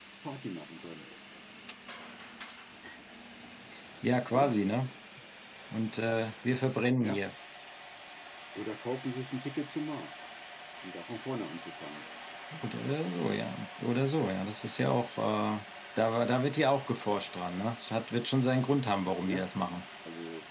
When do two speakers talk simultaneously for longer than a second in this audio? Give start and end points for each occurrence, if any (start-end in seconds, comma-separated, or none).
none